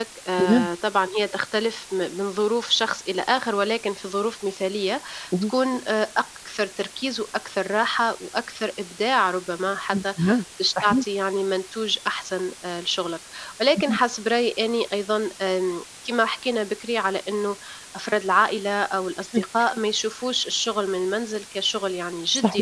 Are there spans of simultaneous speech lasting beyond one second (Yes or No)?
No